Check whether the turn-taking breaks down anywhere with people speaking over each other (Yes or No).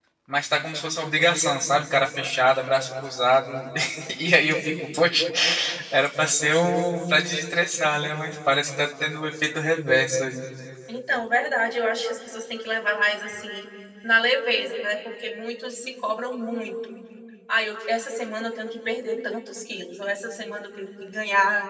No